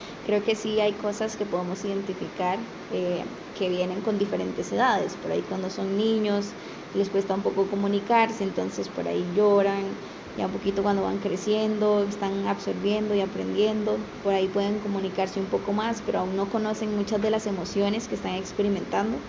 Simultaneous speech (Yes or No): No